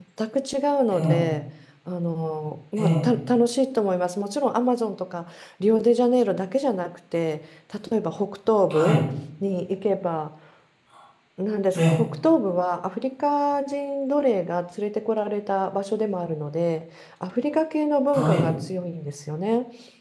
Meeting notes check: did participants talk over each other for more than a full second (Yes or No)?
No